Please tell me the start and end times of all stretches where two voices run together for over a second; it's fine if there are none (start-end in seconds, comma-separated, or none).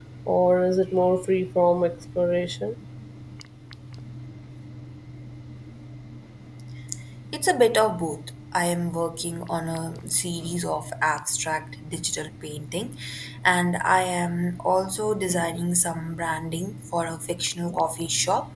none